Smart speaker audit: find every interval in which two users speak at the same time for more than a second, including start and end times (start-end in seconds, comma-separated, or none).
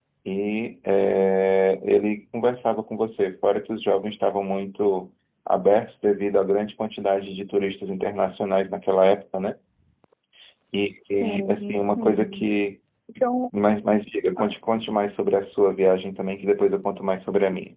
11.2-12.4